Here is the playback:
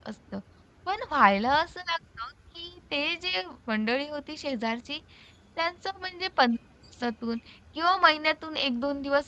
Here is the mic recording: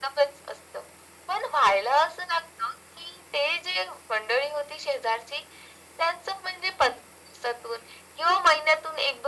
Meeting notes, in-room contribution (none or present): none